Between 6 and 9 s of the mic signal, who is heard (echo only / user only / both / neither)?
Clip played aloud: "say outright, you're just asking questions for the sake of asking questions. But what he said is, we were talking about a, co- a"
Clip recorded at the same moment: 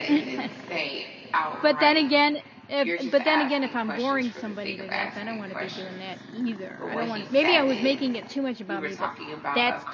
both